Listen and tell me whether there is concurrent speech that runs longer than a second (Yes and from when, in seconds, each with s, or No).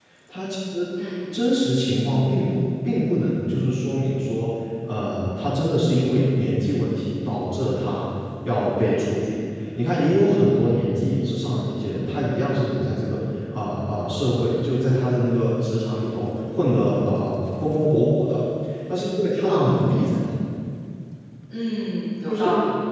No